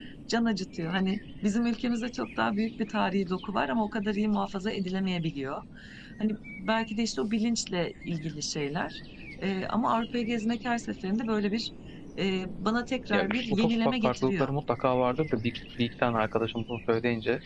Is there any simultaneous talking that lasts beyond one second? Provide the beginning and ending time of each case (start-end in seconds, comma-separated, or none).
13.1-14.5